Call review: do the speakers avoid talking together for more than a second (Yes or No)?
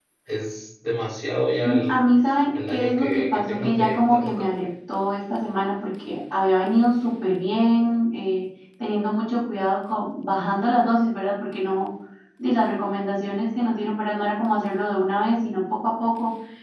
No